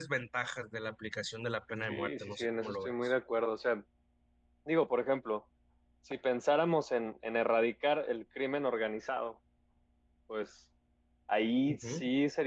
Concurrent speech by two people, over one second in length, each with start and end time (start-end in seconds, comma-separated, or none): 1.9-3.1